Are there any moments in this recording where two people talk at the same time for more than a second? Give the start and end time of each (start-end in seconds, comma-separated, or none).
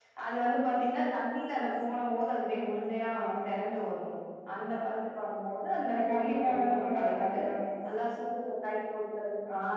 5.9-7.4